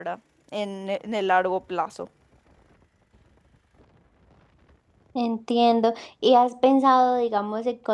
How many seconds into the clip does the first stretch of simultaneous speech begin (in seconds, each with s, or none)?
none